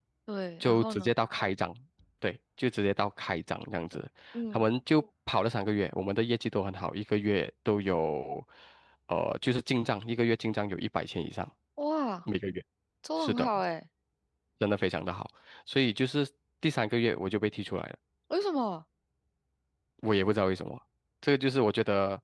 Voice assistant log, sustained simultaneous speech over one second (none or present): none